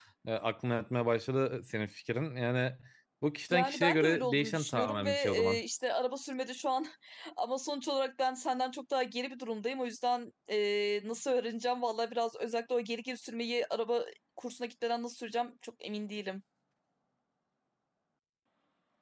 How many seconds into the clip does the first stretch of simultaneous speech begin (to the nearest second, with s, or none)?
4 s